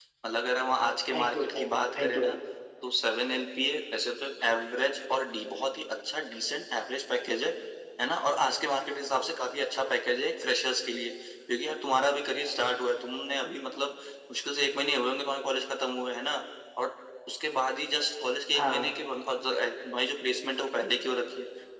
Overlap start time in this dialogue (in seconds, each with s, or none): 1.1 s